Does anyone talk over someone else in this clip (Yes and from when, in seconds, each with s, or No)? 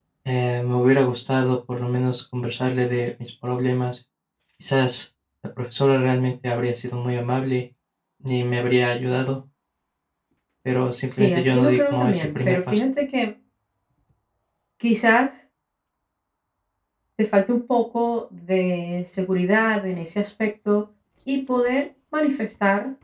Yes, from 11.1 s